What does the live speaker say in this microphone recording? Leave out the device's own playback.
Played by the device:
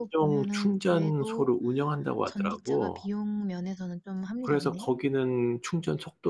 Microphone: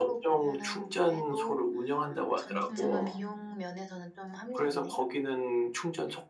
음.

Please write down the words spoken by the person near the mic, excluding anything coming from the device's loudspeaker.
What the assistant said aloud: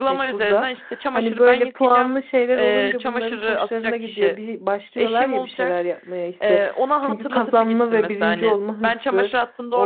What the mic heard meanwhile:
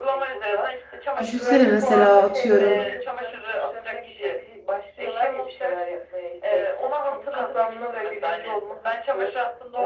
düşünsene mesela atıyorum

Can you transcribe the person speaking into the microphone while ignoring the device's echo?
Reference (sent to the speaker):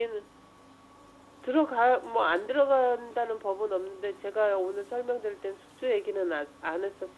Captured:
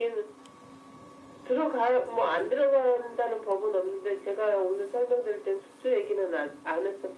none

